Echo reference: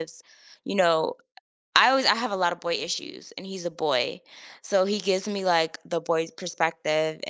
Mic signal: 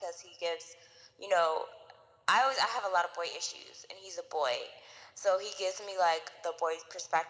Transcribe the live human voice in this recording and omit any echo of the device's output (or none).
none